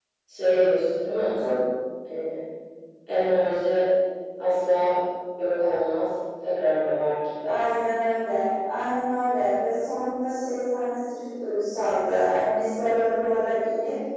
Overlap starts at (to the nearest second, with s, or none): none